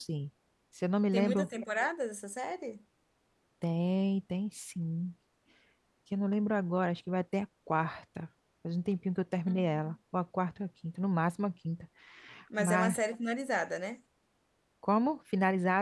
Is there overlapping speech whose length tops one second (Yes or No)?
No